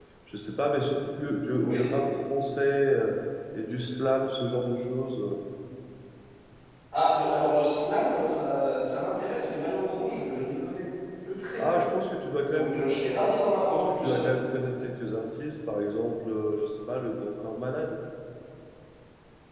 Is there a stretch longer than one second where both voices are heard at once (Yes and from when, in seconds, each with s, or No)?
No